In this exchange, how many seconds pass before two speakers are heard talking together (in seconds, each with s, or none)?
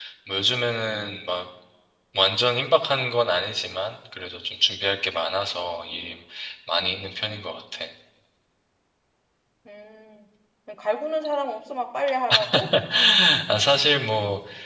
none